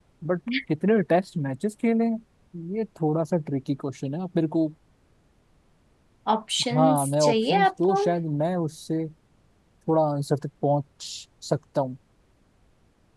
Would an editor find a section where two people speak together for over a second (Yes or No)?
Yes